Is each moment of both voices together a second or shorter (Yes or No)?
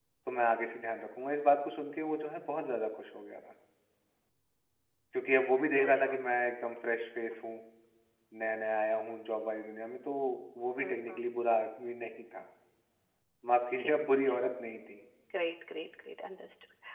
Yes